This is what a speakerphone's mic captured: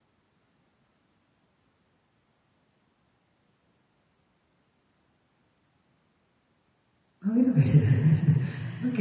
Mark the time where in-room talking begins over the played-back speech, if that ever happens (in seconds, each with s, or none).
7.2 s